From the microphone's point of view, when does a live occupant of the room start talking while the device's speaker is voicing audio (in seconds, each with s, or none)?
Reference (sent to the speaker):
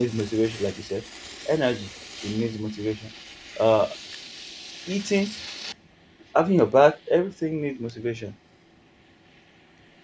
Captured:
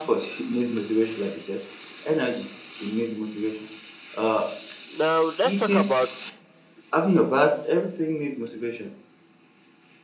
4.9 s